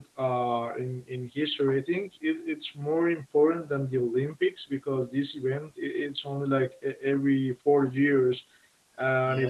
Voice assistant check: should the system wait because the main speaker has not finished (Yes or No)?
Yes